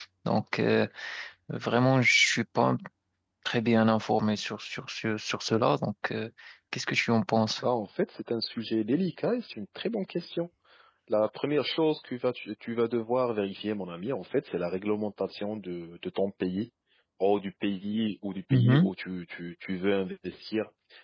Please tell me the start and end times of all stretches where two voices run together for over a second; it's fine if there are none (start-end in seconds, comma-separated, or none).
none